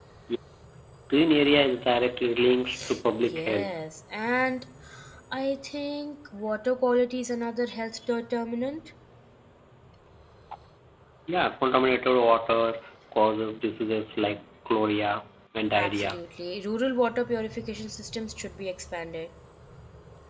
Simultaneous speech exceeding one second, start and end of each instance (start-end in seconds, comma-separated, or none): none